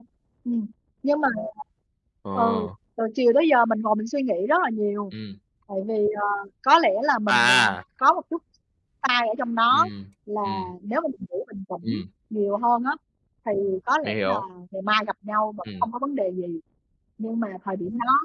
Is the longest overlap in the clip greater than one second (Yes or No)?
No